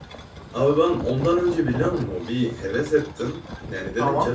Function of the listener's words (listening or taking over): listening